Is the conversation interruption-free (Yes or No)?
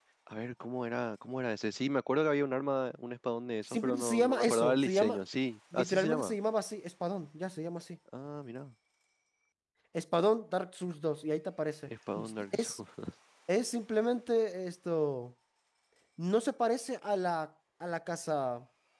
No